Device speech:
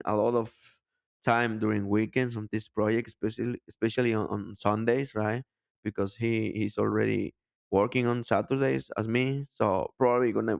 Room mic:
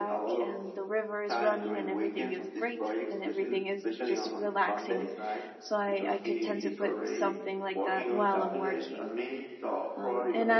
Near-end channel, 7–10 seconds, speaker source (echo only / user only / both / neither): both